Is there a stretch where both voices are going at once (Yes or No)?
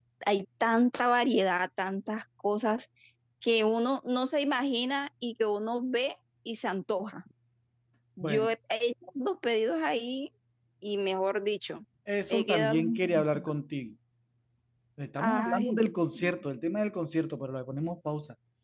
Yes